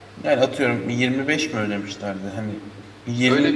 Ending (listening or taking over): taking over